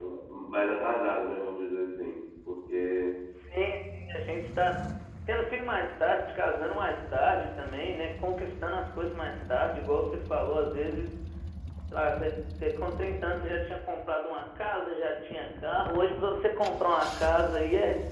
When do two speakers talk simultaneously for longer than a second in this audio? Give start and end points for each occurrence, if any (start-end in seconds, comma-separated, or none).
none